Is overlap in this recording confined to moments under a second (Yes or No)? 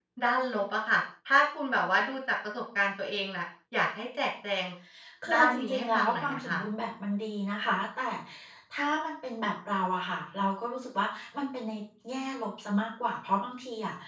No